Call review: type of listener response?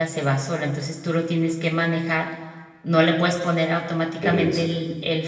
listening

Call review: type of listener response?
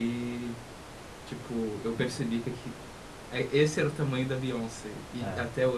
listening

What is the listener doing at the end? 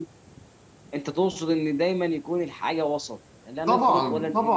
taking over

